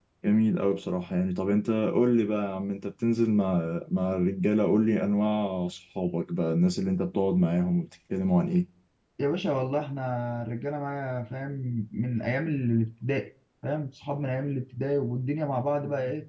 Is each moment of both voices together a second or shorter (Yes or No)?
Yes